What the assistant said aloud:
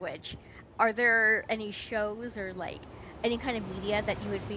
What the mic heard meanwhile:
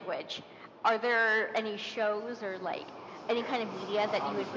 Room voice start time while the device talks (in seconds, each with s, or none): 3.2 s